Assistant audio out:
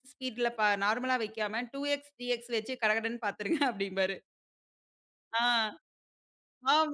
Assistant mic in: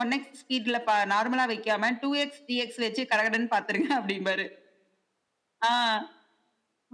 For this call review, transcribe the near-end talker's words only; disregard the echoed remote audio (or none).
none